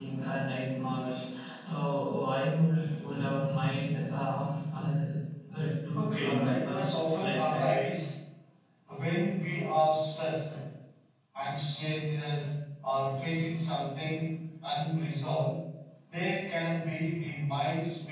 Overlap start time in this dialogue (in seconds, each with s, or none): 6.0 s